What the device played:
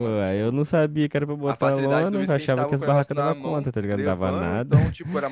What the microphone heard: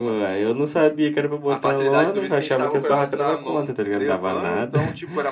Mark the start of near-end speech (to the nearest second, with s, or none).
none